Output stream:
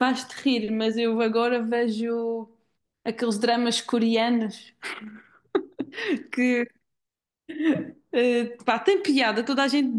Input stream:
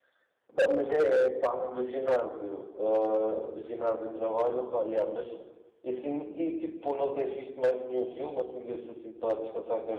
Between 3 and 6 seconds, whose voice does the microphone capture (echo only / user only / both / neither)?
user only